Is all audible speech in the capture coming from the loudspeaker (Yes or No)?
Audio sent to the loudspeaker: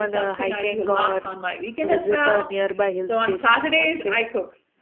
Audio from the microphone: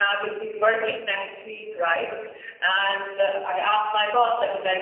No